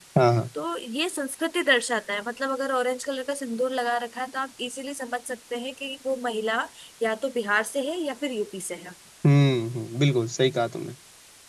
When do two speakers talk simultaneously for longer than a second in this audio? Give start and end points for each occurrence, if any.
none

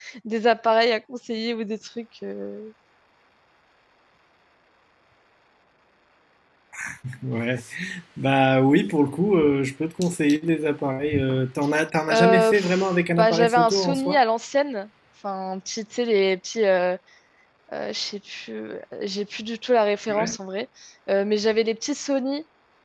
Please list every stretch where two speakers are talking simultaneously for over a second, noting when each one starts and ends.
12.1-14.2

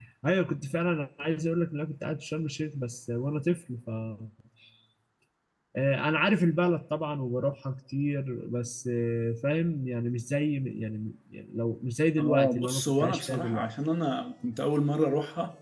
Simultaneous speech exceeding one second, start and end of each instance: 12.2-13.7

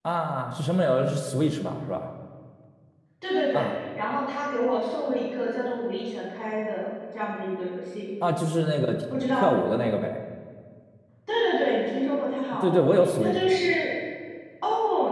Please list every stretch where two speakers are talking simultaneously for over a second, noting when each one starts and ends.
none

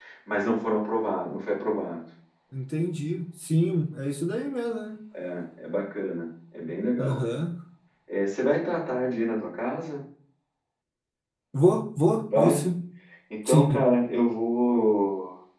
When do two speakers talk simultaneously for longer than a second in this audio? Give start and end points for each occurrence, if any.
none

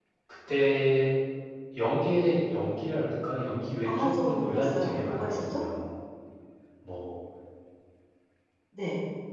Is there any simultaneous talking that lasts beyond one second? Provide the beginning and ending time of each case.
3.8-5.6

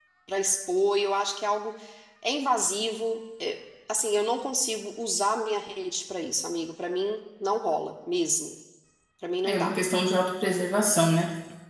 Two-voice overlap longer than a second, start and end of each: none

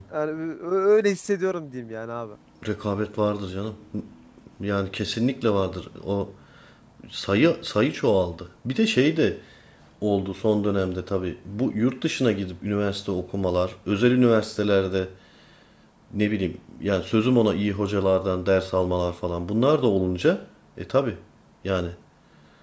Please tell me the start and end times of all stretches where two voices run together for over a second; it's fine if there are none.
none

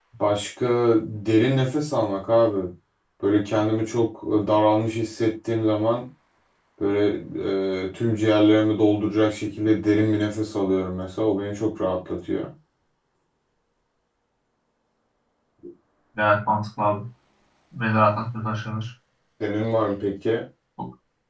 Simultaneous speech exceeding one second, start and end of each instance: none

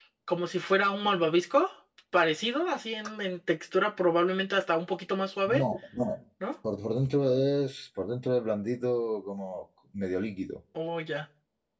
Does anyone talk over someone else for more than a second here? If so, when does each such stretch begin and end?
none

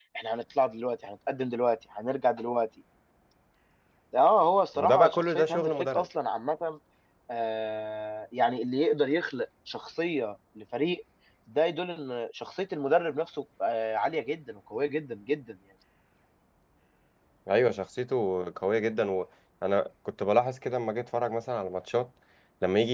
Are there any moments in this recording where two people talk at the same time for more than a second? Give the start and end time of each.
4.8-6.1

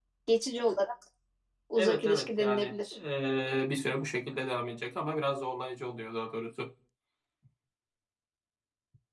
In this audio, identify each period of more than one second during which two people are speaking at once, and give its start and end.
1.8-3.0

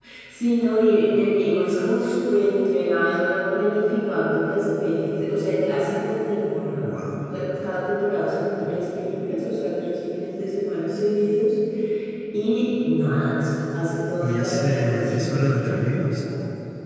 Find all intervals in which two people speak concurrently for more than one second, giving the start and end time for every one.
14.2-16.2

